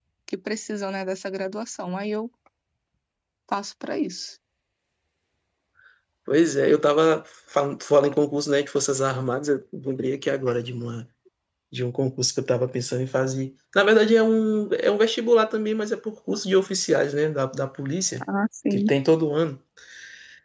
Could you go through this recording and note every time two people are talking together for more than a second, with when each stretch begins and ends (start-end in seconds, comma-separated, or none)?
none